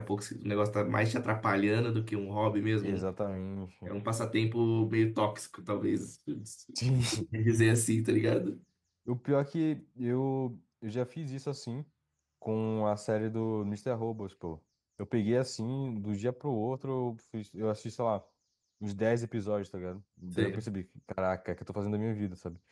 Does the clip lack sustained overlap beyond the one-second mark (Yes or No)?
Yes